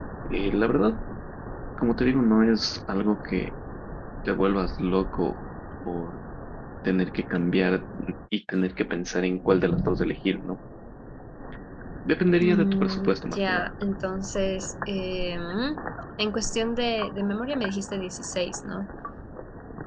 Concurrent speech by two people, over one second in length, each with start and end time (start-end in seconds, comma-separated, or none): 12.4-13.7